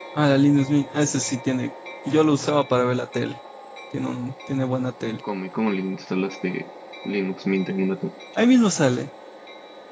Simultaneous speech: No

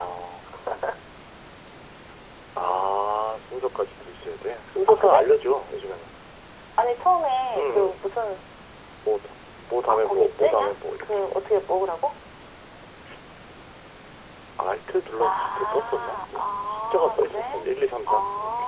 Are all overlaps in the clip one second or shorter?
No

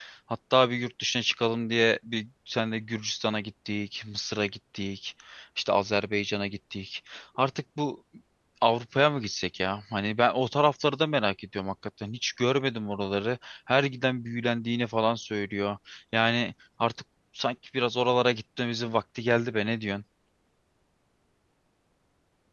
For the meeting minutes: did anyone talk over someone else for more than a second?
No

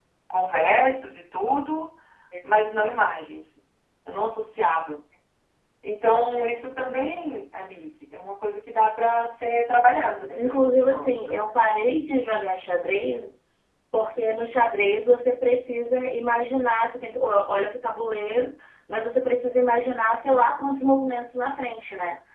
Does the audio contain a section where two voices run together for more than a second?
Yes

